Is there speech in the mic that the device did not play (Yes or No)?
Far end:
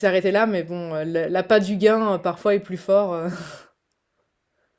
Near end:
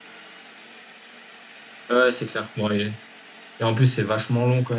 Yes